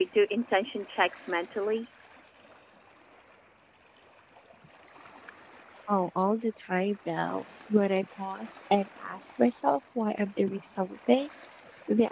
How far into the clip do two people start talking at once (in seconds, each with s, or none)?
none